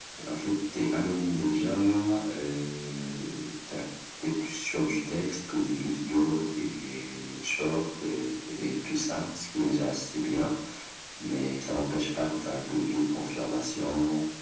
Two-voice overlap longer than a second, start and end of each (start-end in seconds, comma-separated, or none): none